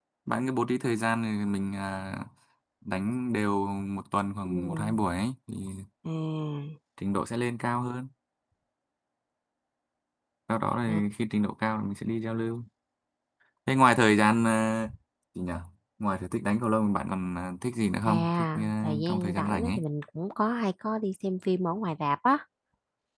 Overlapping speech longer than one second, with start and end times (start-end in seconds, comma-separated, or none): 18.0-19.8